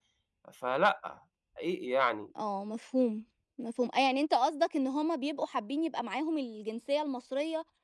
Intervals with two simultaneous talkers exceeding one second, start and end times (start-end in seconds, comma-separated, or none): none